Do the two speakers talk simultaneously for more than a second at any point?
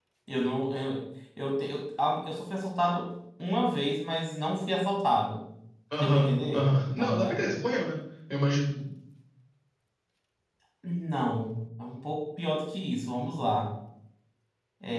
Yes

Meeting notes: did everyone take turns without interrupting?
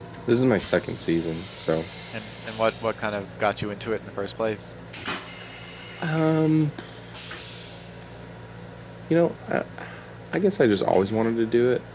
Yes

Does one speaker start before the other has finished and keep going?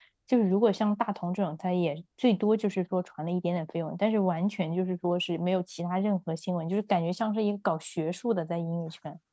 No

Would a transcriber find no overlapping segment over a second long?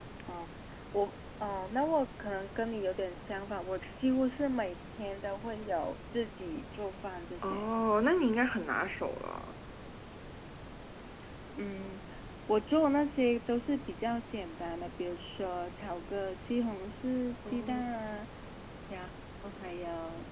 Yes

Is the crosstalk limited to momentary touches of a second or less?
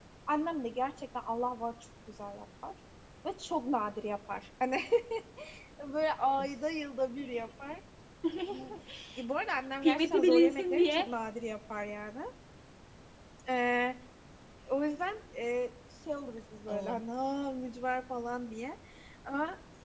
No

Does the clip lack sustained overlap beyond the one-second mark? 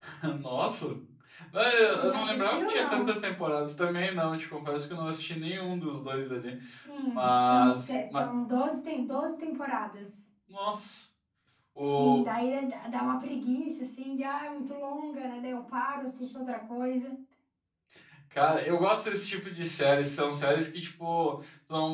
No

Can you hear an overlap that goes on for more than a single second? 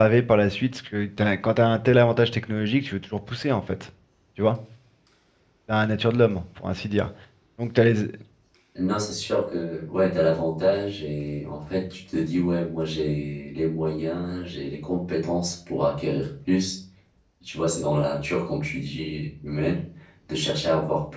No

